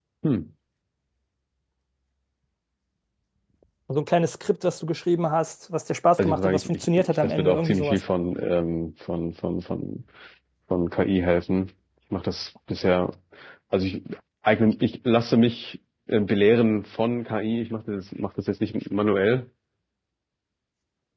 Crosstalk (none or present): present